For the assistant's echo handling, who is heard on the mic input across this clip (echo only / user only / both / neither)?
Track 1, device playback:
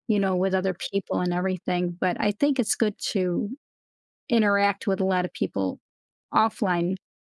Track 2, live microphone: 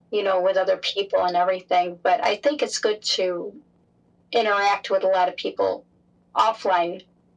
echo only